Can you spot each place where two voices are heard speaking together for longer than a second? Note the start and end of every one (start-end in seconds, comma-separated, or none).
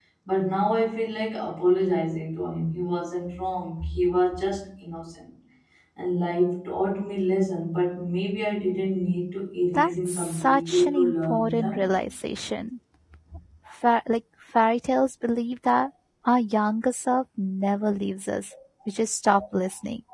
9.7-11.9